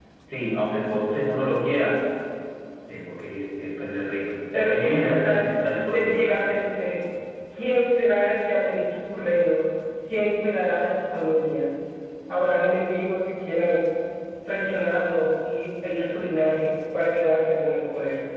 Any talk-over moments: Yes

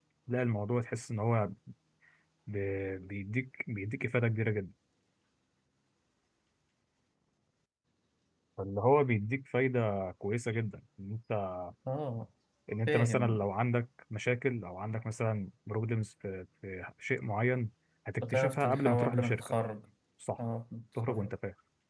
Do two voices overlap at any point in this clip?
Yes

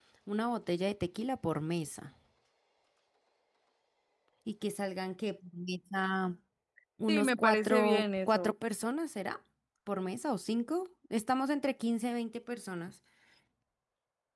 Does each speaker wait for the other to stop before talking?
No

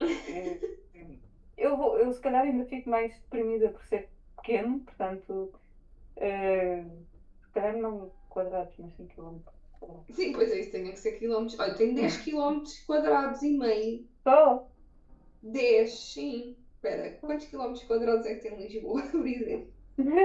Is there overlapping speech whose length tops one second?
No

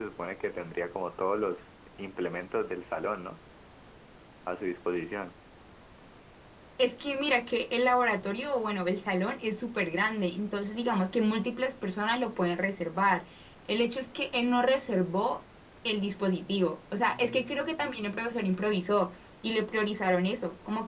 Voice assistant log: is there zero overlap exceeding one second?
No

